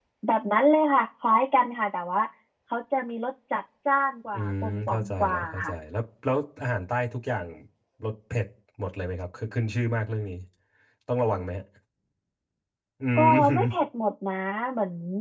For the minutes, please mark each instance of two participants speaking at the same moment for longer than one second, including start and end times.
4.3-5.7

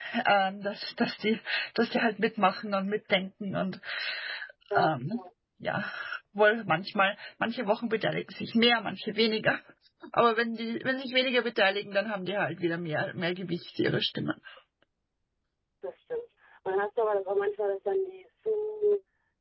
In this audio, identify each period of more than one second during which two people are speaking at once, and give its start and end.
none

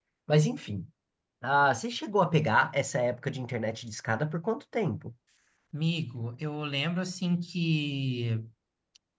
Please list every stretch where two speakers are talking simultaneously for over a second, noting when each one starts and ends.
none

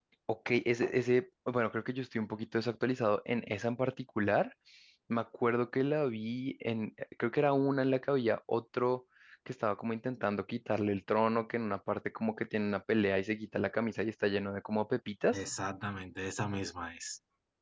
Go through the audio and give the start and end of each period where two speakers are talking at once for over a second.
none

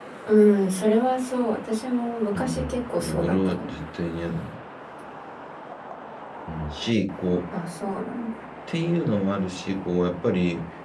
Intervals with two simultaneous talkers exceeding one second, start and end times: 2.3-3.7

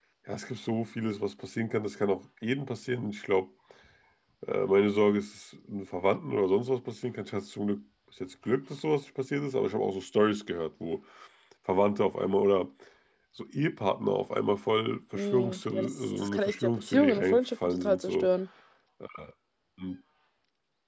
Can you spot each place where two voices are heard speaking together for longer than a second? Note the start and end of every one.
15.1-18.3

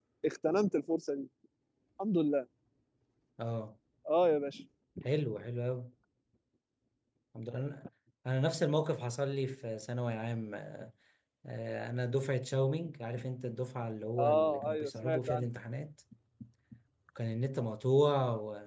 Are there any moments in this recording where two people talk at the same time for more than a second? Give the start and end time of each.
14.2-15.5

